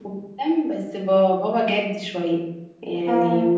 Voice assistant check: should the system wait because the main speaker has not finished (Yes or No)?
Yes